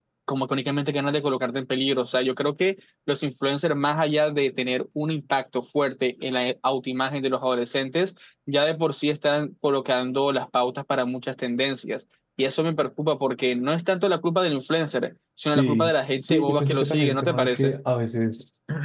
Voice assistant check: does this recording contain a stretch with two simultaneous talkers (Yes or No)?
Yes